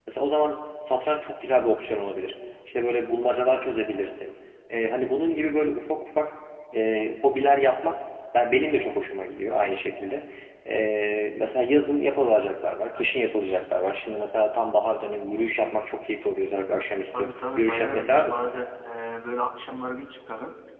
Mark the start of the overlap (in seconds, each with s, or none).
17.1 s